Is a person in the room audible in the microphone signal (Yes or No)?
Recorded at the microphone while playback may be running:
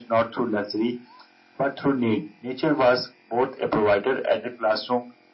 No